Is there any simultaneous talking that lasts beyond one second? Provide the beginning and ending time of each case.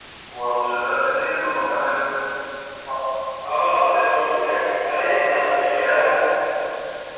none

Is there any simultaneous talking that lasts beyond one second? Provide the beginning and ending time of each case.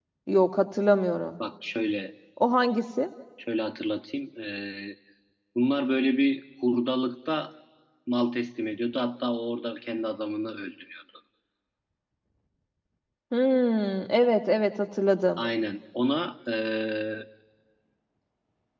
none

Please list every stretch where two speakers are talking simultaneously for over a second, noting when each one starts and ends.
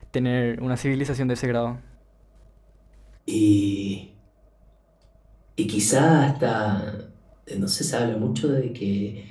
none

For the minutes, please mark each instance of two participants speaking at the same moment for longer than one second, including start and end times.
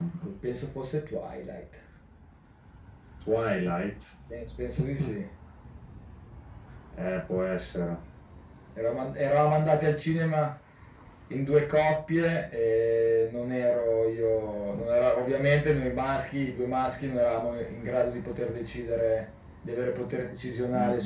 none

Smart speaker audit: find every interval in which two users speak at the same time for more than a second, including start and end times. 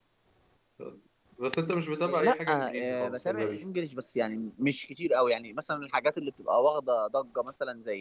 2.0-3.6

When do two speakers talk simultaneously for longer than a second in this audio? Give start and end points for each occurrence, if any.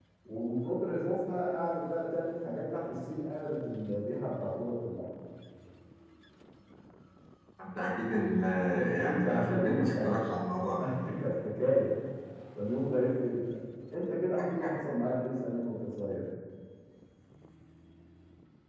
9.0-10.4

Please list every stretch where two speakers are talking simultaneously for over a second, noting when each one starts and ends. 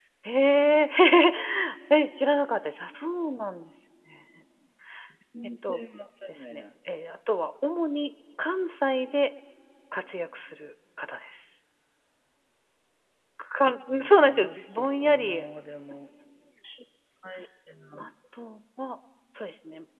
14.0-15.4

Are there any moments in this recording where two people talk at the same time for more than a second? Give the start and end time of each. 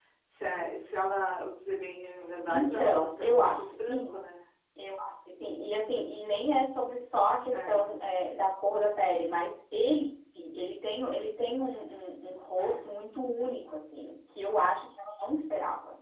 2.5-4.2

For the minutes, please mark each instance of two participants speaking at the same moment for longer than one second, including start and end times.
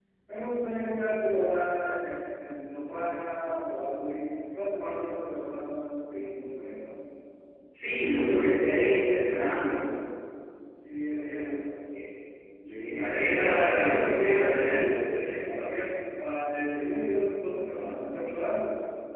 12.9-15.0

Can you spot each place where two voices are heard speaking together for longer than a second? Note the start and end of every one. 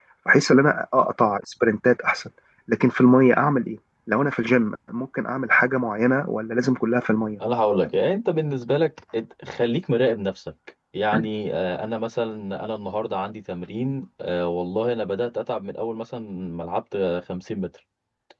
none

